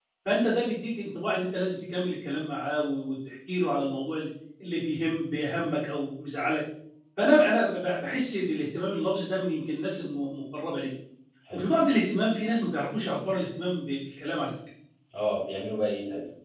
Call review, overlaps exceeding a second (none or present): none